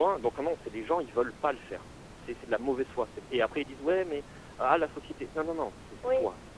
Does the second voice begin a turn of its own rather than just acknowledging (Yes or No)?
Yes